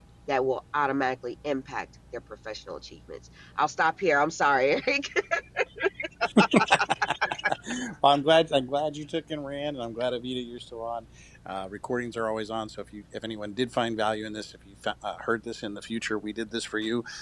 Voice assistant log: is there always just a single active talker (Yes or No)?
Yes